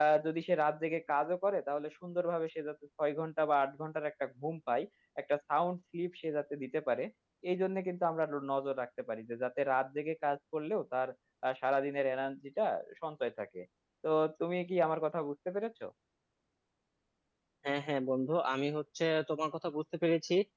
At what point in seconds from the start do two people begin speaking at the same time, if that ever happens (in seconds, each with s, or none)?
none